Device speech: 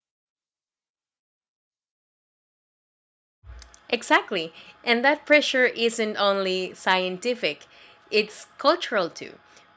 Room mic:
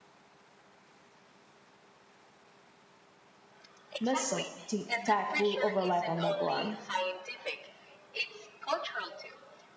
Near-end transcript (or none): missile t- tech will overlap on that one.